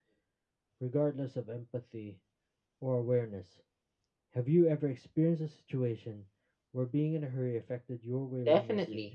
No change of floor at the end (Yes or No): No